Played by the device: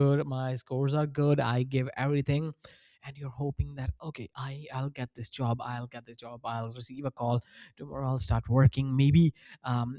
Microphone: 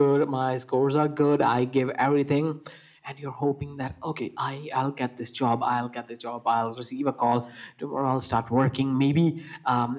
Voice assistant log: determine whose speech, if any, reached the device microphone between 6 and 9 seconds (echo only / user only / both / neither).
echo only